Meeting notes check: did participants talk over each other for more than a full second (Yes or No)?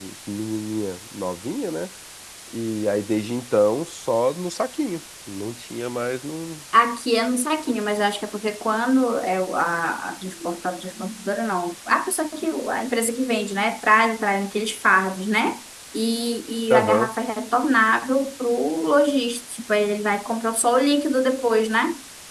No